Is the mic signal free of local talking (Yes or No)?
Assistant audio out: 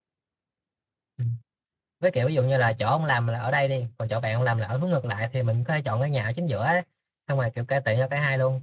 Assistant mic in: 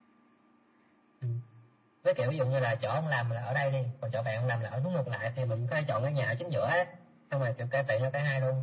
Yes